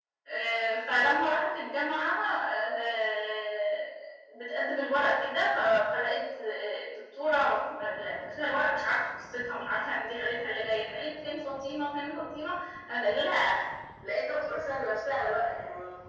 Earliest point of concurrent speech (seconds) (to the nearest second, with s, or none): none